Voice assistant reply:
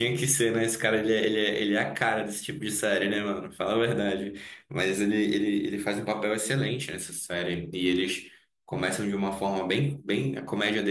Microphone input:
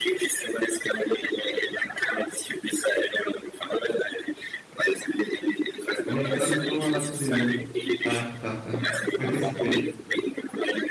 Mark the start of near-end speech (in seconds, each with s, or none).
6.0 s